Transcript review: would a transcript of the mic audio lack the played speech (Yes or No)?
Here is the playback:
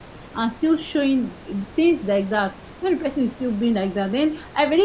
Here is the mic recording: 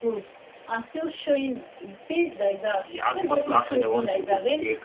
No